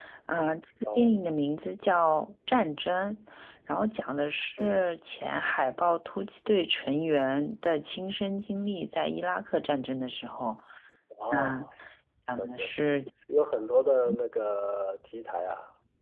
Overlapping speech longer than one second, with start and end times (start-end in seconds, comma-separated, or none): none